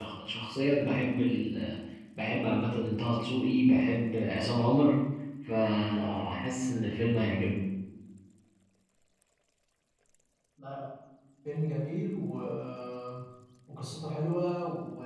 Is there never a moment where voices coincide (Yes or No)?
Yes